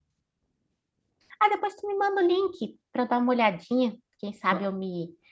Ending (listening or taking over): listening